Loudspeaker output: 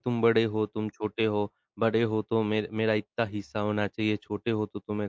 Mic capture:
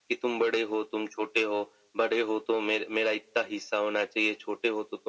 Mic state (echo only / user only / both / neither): echo only